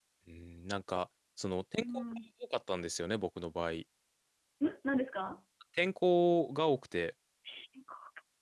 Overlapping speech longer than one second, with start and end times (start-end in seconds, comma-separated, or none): none